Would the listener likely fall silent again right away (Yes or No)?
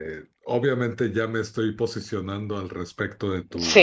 Yes